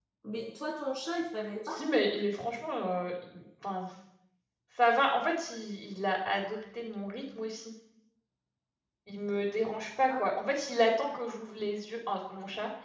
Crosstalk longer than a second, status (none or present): none